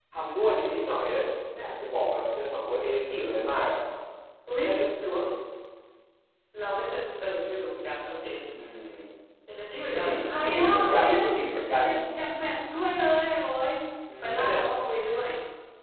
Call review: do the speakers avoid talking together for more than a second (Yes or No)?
No